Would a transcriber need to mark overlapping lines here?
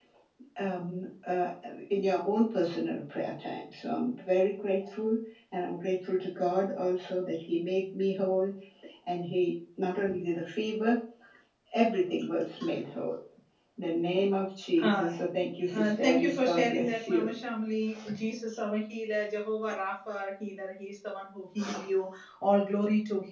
Yes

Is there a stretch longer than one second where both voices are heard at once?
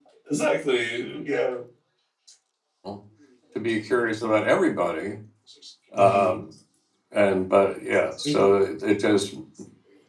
No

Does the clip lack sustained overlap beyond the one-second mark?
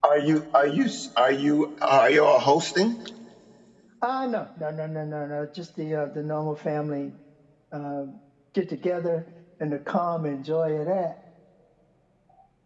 Yes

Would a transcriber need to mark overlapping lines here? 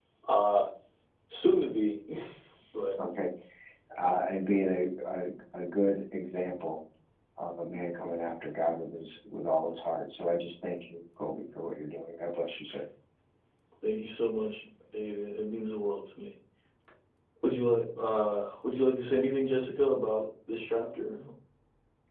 No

